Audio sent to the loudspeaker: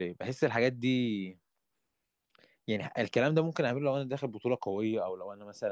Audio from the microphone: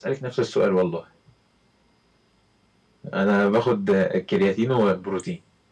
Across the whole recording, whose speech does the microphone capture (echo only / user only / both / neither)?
user only